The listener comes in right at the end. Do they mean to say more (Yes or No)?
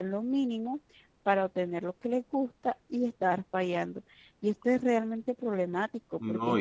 Yes